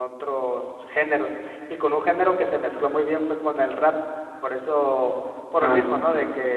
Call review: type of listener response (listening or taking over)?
listening